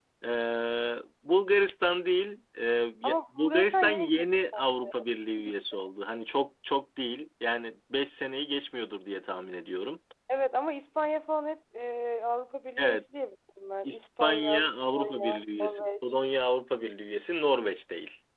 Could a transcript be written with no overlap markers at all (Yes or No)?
No